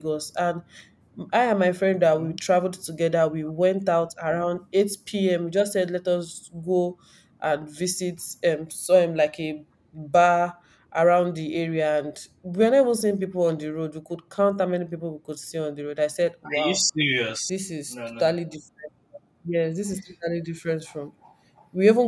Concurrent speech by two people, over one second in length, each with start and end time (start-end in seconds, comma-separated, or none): none